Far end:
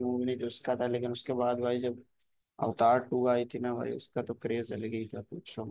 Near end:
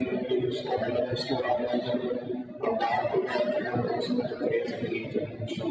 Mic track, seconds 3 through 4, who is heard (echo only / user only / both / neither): echo only